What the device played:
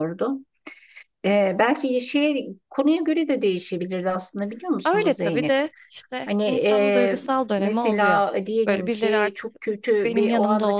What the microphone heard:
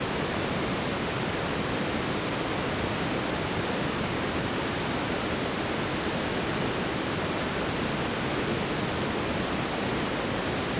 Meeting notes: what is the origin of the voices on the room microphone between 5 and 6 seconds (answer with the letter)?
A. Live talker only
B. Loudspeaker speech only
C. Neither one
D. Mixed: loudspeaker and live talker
C